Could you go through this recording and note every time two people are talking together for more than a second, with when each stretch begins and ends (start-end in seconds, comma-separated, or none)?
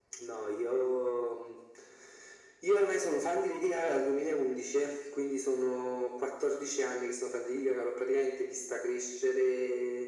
none